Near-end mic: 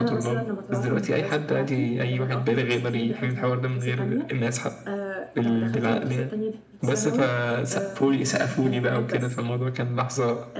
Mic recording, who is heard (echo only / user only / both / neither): both